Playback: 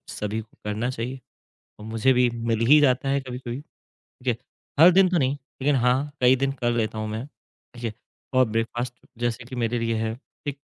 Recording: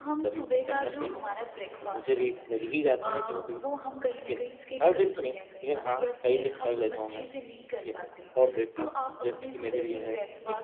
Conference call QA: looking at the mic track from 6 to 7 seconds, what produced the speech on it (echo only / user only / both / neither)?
both